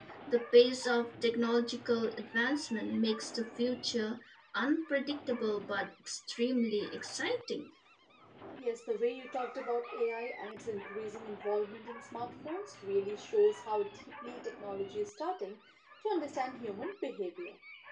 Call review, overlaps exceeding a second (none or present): none